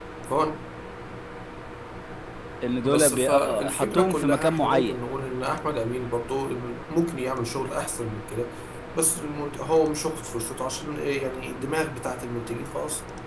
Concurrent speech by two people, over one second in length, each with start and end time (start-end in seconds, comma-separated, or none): 2.8-5.0